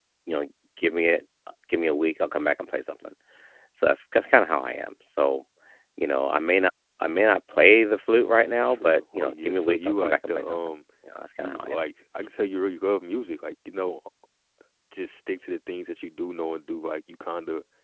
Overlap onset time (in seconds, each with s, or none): 8.7 s